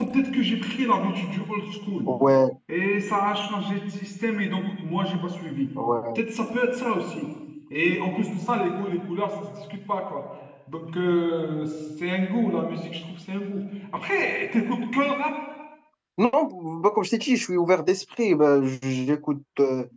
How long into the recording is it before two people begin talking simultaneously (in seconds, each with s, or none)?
none